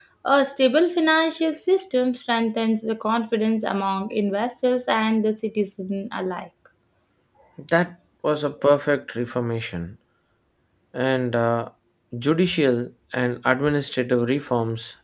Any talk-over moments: No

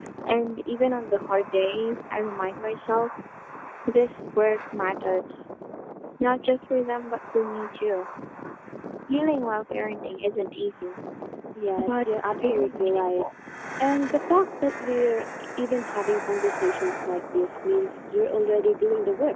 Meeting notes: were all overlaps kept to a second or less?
No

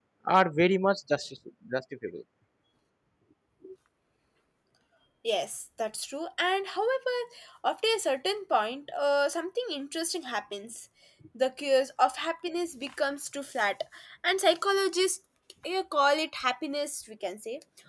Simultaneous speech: No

